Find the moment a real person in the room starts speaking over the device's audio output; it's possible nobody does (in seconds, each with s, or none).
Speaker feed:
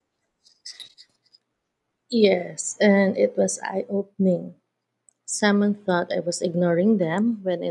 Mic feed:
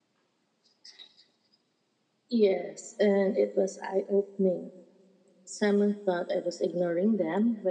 none